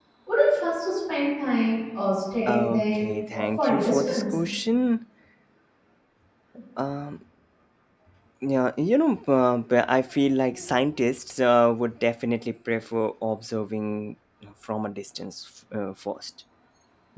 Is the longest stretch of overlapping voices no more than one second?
No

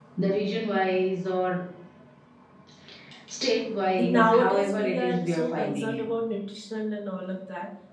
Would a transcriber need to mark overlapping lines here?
Yes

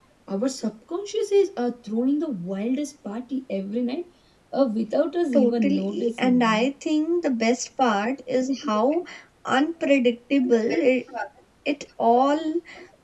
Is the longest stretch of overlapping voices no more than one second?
No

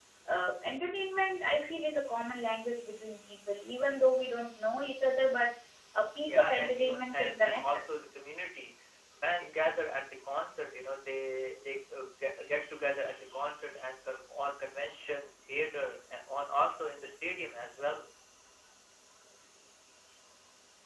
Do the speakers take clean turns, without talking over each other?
No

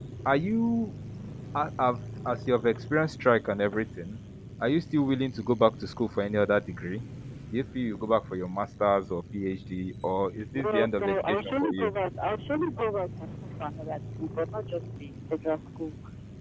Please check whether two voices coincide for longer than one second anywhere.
Yes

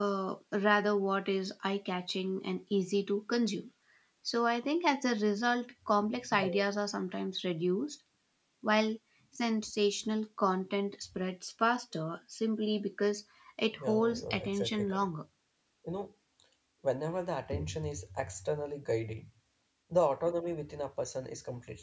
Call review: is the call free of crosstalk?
No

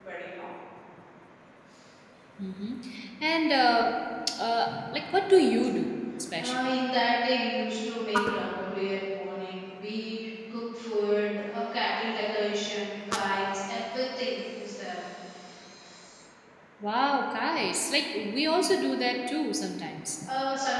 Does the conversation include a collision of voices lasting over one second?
No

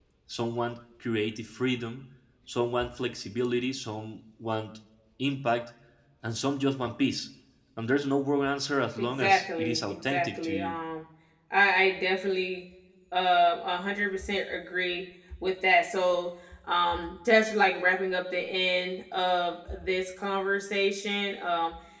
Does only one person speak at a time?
No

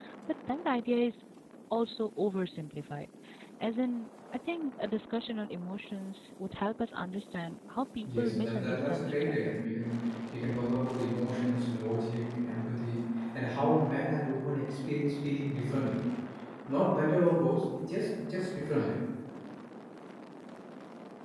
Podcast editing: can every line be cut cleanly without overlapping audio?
No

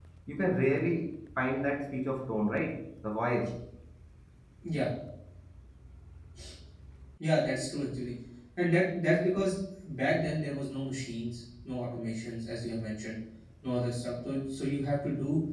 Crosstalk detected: No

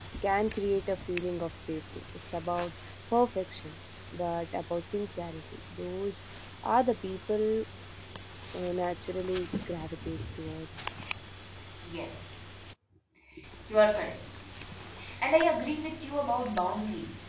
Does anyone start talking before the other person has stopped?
No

